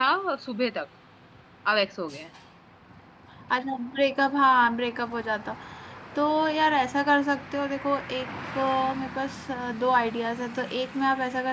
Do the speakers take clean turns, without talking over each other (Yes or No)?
Yes